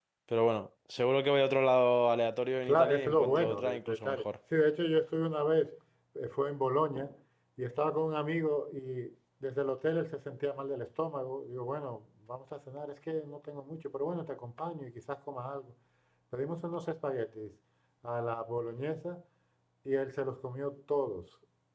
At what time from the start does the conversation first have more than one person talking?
2.7 s

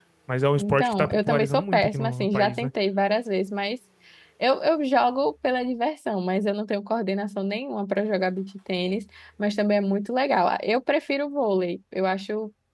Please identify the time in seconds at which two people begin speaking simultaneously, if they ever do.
0.6 s

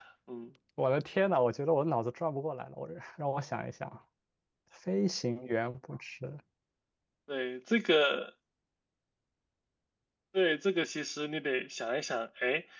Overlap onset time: none

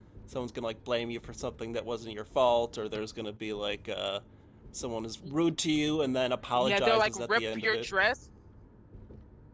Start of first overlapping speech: 6.5 s

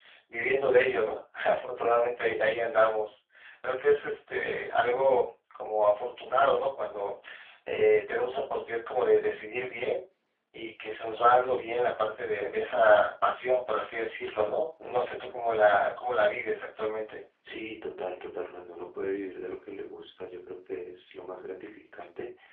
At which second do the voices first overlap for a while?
none

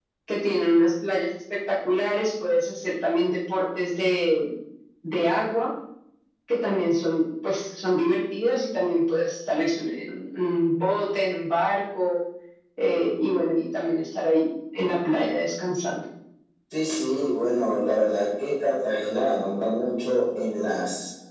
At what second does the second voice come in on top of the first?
none

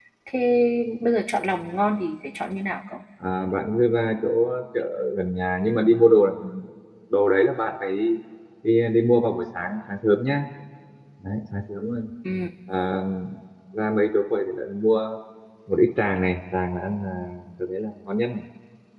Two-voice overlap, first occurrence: none

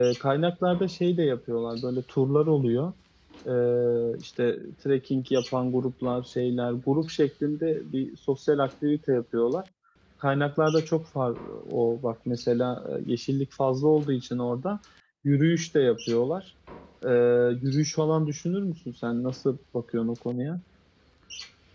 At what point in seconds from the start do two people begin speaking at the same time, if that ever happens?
none

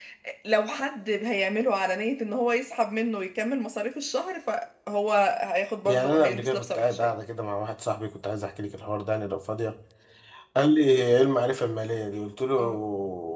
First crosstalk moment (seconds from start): 5.8 s

